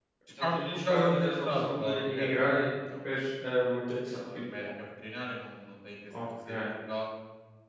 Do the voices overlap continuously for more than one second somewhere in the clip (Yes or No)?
Yes